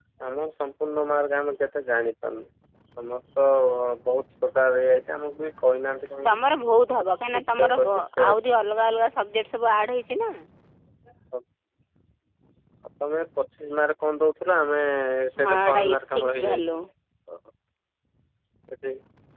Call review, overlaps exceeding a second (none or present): present